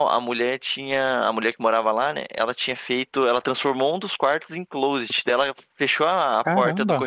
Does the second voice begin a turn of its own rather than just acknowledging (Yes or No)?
No